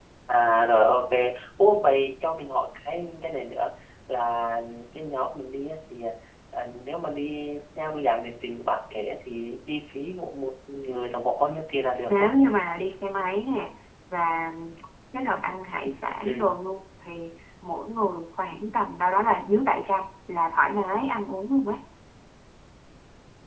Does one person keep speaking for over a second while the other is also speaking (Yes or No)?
No